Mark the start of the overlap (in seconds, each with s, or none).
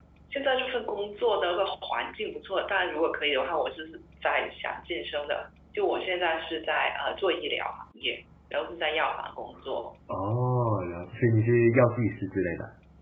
none